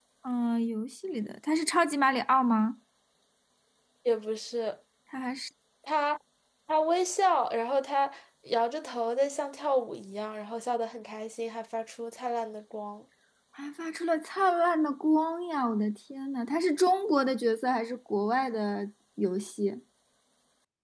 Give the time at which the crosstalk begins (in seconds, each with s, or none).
none